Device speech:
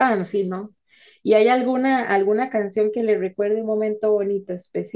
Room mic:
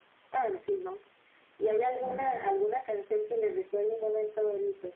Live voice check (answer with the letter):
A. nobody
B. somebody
B